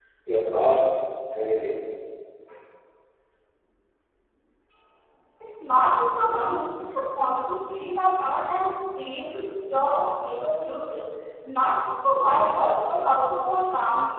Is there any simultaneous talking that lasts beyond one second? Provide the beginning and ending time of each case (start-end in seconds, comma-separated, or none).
none